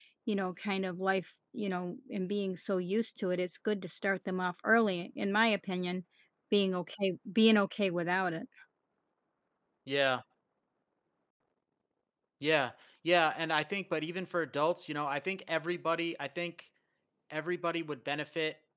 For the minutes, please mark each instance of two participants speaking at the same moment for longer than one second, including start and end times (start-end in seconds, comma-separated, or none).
none